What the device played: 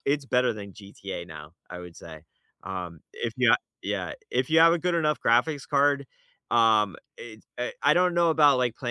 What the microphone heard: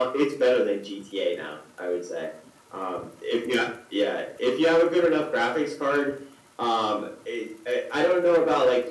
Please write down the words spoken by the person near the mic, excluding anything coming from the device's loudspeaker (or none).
none